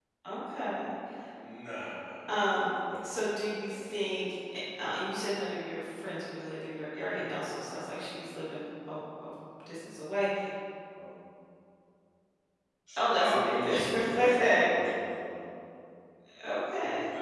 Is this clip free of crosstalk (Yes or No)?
No